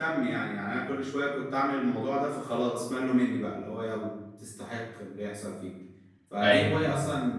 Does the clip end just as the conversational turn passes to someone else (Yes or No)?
No